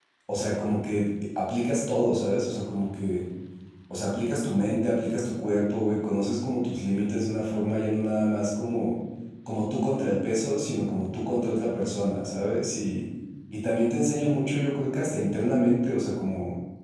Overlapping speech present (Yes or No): No